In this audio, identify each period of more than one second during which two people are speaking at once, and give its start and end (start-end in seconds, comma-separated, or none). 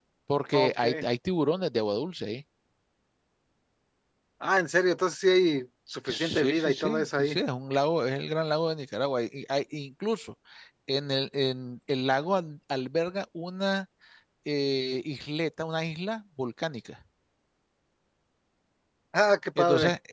6.1-7.4